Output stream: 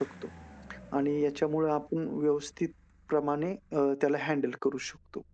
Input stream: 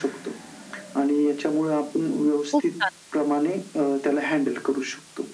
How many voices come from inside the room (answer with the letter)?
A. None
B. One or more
B